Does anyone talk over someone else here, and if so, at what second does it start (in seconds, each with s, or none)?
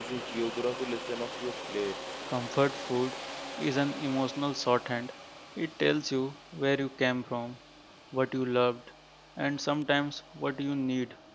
none